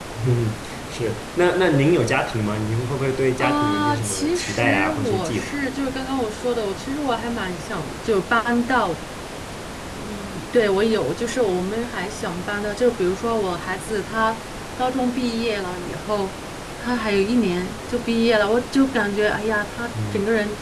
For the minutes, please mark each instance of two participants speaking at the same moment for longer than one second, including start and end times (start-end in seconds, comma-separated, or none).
3.4-5.6